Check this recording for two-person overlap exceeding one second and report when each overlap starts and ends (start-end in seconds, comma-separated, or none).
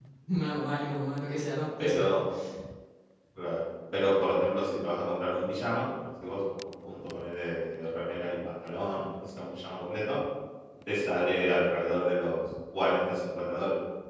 none